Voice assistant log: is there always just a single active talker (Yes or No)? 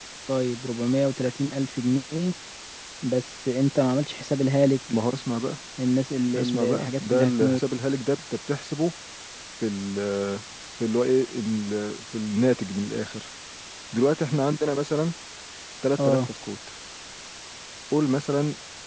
No